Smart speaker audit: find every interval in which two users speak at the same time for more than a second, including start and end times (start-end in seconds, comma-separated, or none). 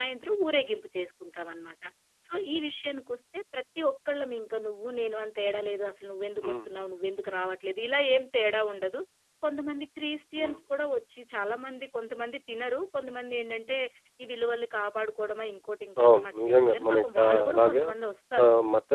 16.0-17.8